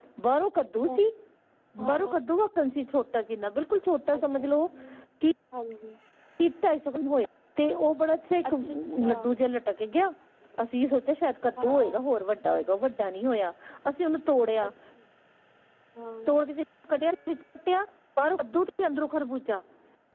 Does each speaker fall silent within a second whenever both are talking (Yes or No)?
Yes